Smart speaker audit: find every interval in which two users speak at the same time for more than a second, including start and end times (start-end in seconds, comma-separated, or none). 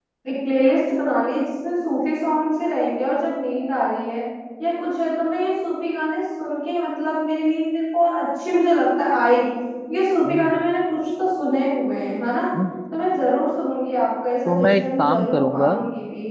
14.4-15.7